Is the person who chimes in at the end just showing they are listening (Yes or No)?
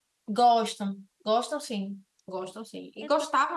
Yes